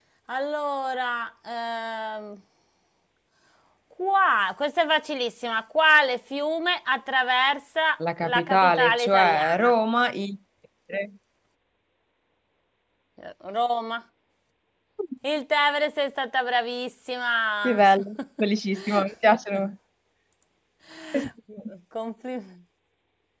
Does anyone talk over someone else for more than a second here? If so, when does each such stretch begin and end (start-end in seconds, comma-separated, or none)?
8.2-9.7